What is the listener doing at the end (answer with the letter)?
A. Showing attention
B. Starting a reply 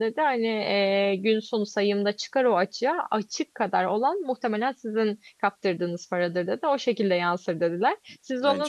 A